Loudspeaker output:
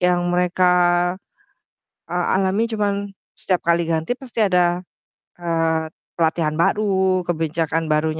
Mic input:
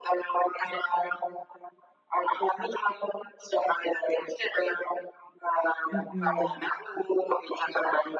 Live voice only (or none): Mhm.